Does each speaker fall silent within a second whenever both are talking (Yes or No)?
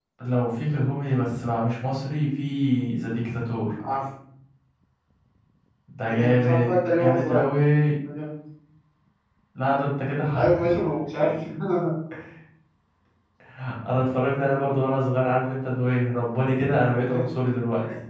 No